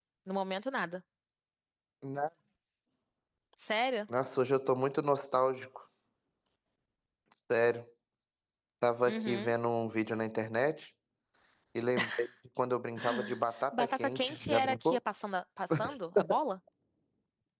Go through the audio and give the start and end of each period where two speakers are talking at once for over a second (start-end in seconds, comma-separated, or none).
13.7-15.0